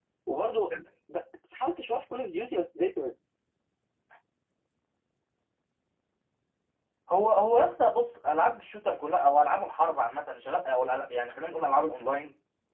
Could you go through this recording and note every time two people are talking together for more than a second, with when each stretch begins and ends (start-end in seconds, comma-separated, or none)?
none